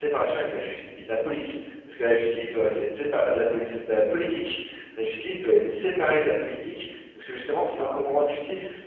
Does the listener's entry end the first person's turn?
No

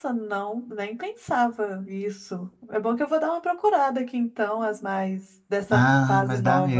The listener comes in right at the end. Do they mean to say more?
Yes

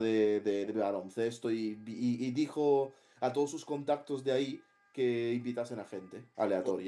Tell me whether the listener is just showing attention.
No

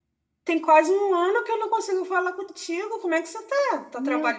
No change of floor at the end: No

